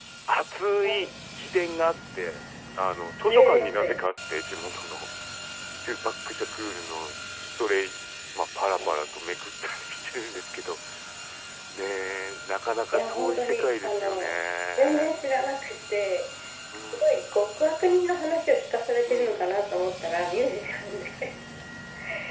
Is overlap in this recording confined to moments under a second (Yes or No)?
No